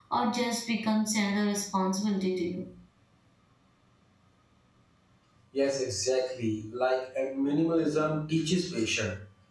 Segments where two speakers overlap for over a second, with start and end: none

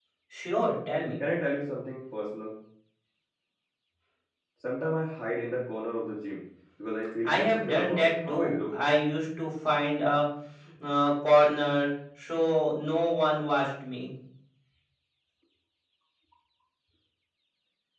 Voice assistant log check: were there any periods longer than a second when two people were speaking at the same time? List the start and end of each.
7.2-8.8

